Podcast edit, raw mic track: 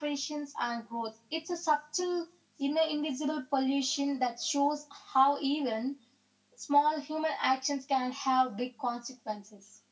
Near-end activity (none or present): none